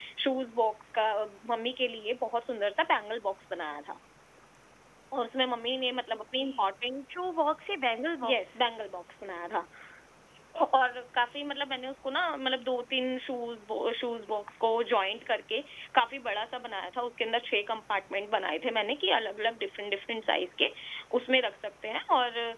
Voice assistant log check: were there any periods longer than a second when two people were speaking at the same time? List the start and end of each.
none

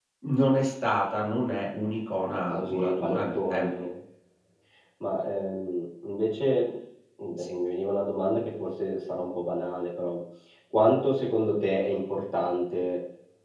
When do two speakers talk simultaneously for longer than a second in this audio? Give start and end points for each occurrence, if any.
2.4-3.7

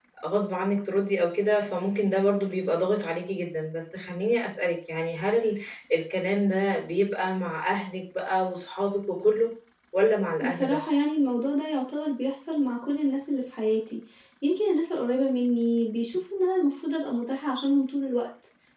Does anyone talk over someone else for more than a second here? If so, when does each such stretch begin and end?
none

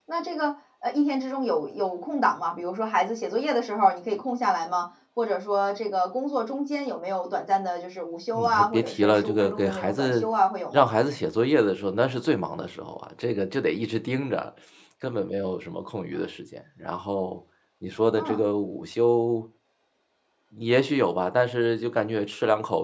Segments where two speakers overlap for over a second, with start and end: 8.3-10.3

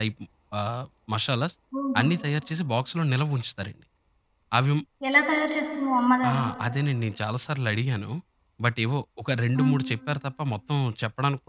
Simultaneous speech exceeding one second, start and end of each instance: none

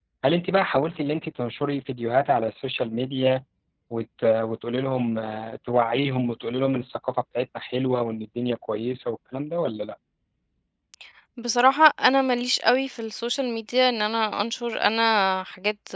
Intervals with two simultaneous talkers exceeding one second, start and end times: none

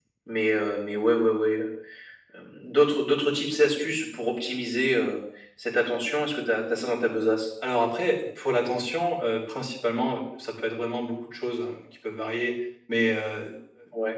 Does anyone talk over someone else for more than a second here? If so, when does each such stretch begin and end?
none

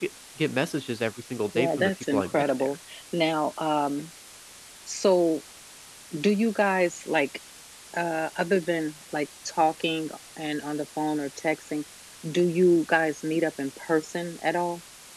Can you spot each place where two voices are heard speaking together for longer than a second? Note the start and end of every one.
1.6-2.8

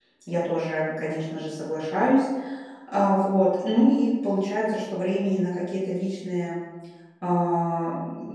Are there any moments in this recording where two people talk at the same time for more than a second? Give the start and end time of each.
none

